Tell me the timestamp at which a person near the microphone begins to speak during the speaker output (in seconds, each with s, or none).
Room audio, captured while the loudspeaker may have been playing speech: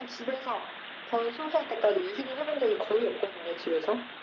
none